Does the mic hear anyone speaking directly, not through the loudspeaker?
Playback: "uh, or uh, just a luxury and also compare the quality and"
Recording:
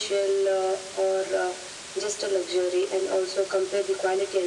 No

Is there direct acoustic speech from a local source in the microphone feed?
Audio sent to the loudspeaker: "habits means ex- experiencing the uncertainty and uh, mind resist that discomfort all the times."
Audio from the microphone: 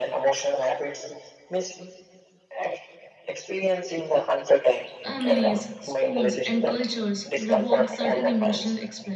Yes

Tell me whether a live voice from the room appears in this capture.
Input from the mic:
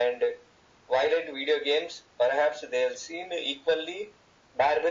No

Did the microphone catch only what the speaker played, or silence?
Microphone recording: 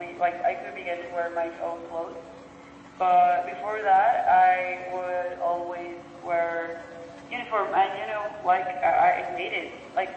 Yes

